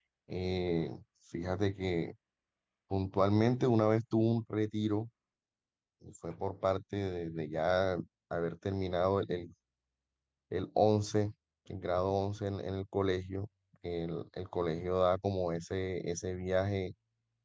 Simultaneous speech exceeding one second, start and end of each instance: none

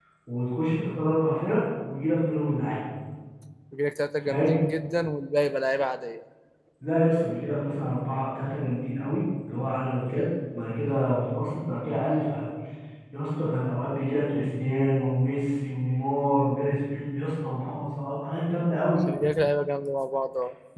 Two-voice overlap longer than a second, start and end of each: none

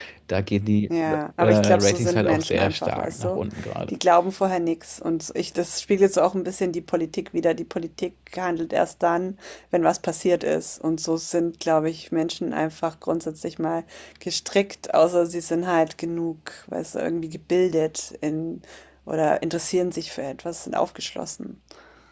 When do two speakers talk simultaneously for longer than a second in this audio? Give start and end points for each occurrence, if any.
1.4-3.4

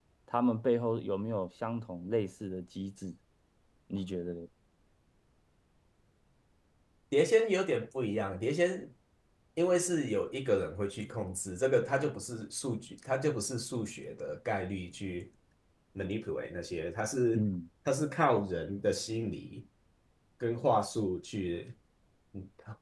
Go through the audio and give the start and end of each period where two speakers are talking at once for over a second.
none

